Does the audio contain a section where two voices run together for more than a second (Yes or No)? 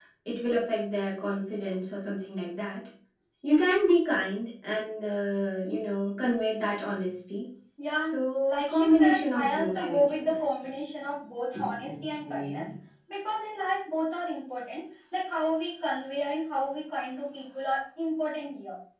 Yes